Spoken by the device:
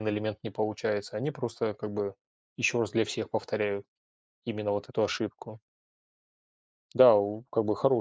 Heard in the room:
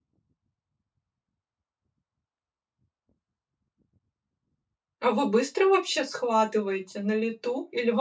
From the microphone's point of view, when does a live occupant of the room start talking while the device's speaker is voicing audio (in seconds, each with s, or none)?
5.0 s